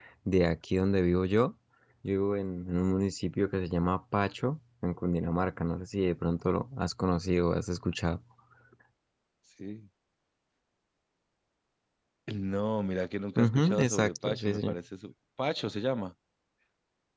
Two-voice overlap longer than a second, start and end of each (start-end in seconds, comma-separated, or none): 13.4-14.8